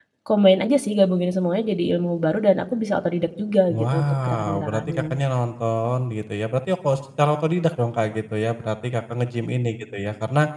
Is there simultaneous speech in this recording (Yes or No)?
Yes